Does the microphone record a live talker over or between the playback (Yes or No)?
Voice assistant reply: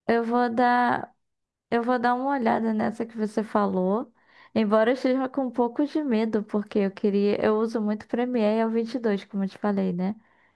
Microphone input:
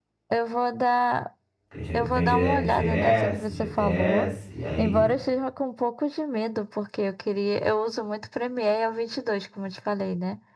Yes